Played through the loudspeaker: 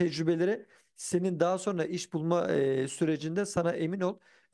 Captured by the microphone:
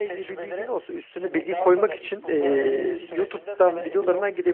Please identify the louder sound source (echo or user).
user